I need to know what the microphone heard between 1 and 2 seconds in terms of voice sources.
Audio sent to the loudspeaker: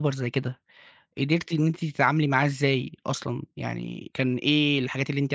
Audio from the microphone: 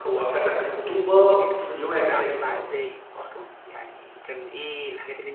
both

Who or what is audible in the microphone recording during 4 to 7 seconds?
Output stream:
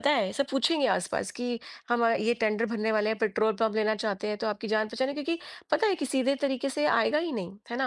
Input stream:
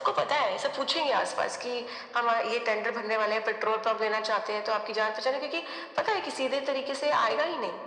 echo only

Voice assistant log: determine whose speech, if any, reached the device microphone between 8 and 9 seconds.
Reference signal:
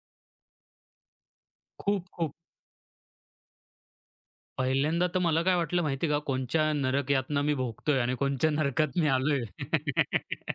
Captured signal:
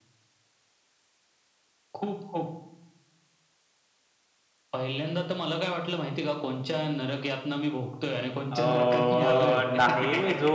both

